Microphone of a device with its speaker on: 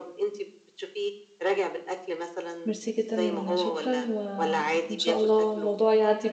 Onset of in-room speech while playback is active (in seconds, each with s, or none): 2.6 s